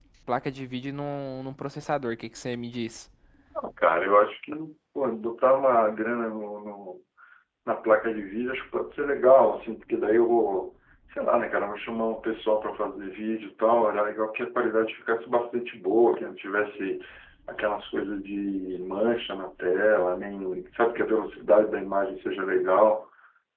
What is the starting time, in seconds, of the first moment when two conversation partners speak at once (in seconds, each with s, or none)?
none